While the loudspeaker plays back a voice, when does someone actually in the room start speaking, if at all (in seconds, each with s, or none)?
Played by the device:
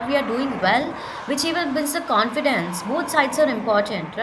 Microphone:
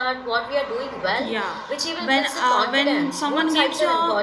1.2 s